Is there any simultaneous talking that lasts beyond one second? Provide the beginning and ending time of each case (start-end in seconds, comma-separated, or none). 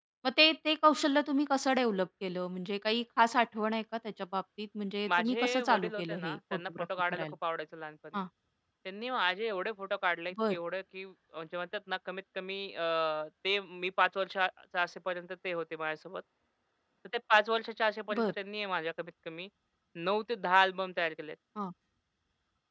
5.1-7.2